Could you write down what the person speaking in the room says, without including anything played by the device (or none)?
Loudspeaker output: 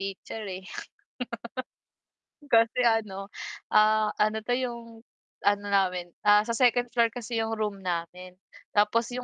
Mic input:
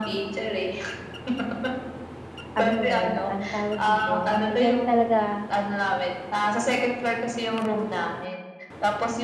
ano, eh, anong tawag dito, eh, diyan talaga